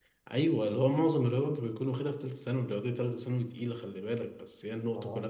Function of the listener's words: listening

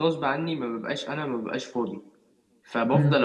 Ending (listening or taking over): listening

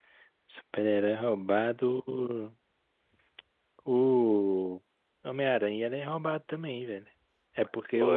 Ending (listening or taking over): listening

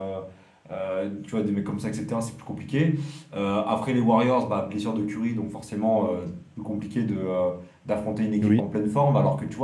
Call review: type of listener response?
listening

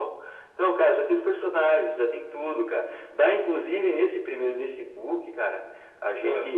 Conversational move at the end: listening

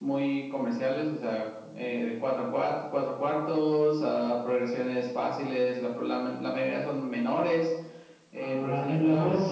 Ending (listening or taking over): taking over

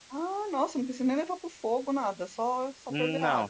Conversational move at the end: taking over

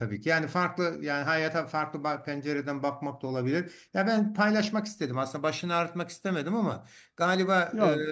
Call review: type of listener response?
listening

